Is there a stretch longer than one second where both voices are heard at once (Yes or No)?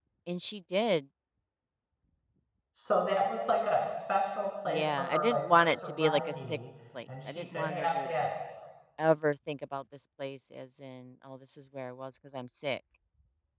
Yes